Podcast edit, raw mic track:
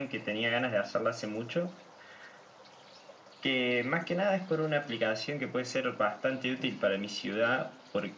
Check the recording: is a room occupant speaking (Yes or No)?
No